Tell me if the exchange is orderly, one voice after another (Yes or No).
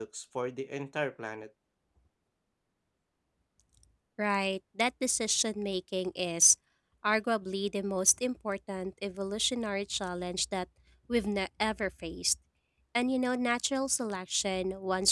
Yes